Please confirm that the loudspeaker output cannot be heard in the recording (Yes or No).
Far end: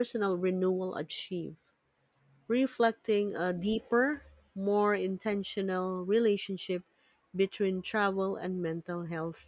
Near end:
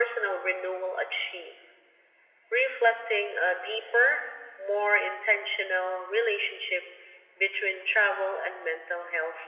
No